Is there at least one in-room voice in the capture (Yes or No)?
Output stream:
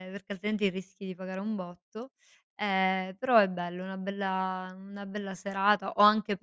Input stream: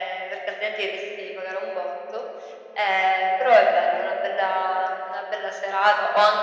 No